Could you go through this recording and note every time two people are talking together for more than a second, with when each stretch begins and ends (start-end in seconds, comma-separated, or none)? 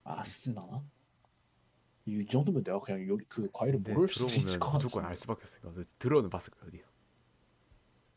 3.7-5.2